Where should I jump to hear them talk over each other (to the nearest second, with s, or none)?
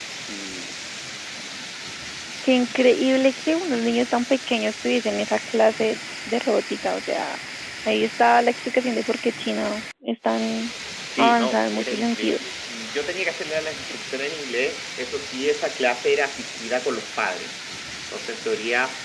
11 s